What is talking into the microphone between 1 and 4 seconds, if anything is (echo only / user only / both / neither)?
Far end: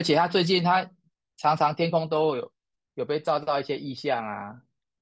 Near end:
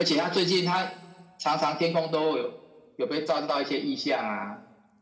echo only